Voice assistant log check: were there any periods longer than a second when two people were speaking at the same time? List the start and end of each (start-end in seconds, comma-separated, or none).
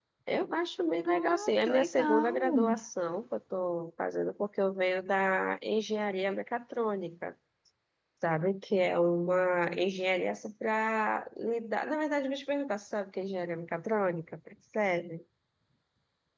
1.1-2.8